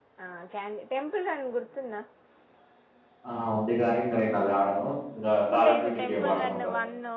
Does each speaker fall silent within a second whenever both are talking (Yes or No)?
No